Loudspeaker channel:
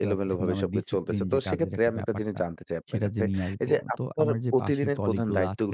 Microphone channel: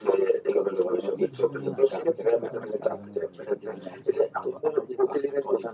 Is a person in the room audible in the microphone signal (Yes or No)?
Yes